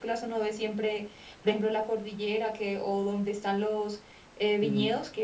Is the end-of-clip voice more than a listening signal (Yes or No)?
No